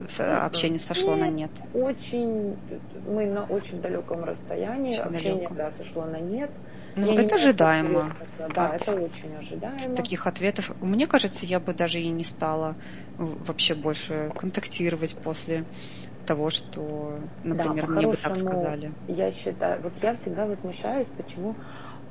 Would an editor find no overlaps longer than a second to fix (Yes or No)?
No